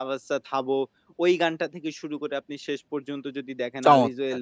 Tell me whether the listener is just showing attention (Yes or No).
Yes